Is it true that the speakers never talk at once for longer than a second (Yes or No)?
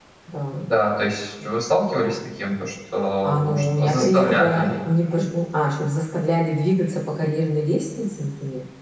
No